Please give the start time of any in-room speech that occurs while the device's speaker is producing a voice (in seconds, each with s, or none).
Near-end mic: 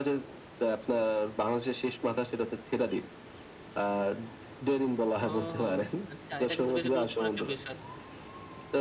5.3 s